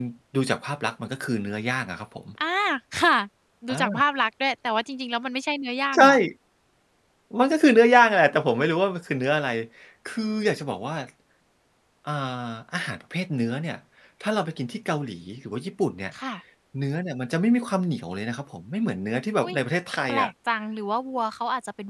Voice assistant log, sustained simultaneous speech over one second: none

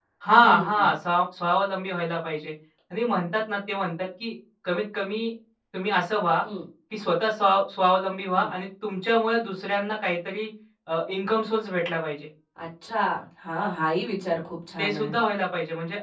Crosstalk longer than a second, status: none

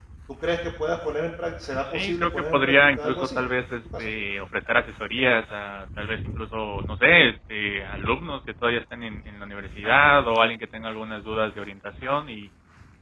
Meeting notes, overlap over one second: present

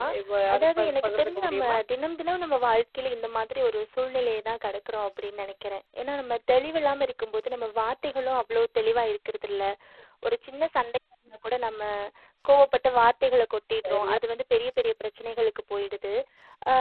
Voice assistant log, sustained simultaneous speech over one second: present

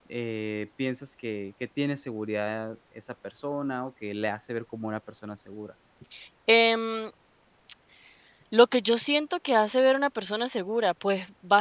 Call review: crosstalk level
none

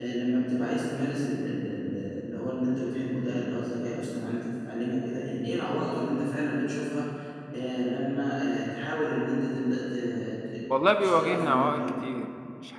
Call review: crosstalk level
present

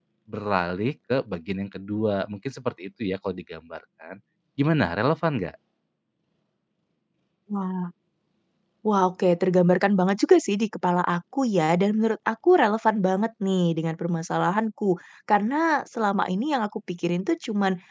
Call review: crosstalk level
none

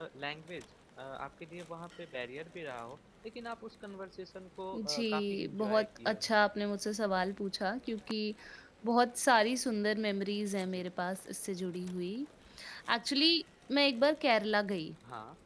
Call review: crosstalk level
present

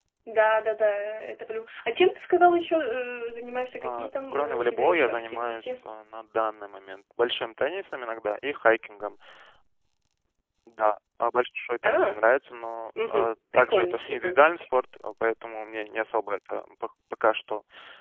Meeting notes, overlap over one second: present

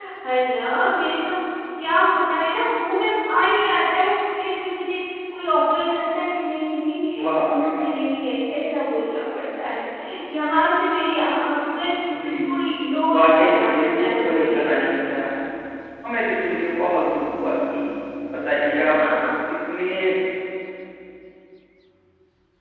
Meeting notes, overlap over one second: present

